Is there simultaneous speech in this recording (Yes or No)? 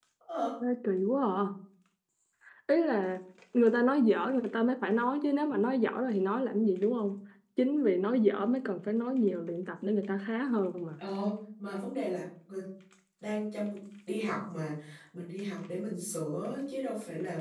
No